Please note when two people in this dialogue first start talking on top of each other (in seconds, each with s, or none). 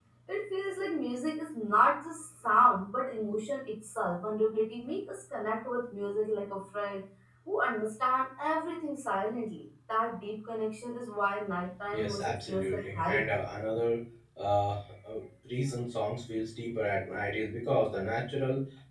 11.9 s